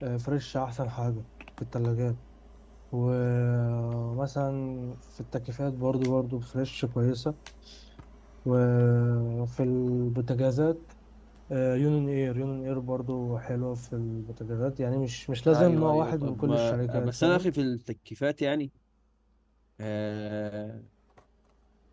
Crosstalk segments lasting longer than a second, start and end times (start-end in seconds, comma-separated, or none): 15.5-17.5